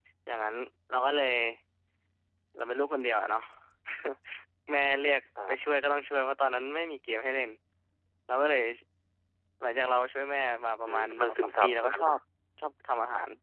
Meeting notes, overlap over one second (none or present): present